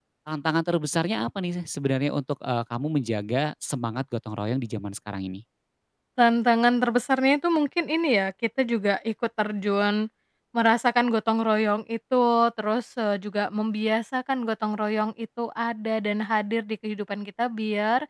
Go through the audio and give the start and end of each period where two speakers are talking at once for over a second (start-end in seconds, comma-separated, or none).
none